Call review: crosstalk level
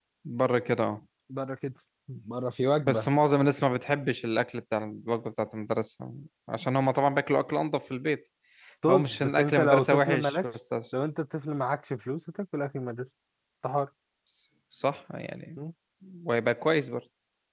present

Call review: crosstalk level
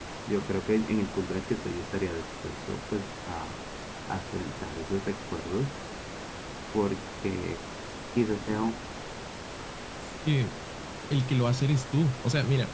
none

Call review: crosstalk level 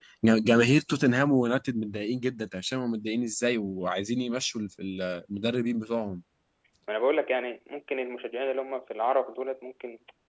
none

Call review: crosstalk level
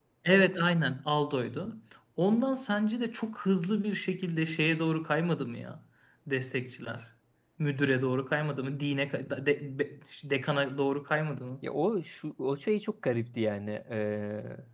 none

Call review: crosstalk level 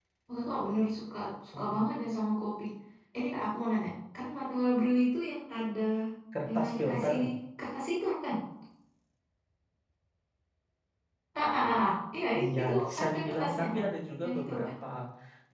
present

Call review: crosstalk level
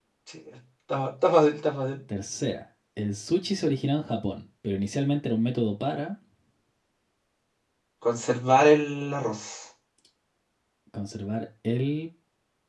none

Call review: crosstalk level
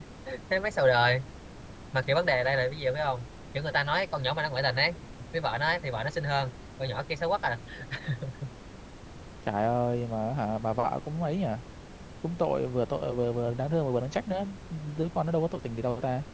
none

